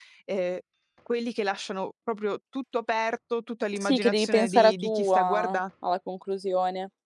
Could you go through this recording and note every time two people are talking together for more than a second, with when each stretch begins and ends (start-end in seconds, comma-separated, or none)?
3.8-5.6